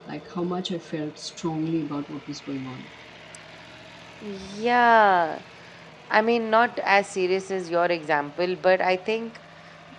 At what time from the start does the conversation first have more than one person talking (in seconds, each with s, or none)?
none